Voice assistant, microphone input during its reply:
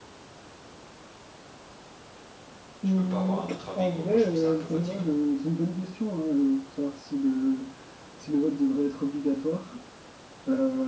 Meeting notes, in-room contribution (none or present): present